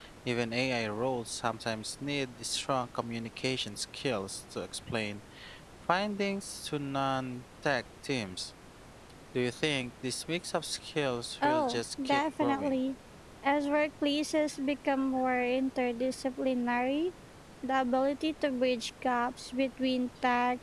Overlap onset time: 11 s

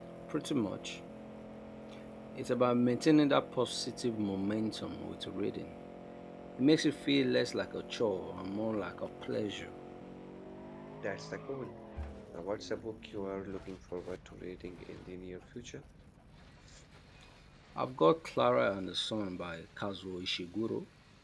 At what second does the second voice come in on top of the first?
none

